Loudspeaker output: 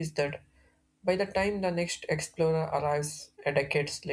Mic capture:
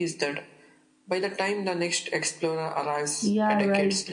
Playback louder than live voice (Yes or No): No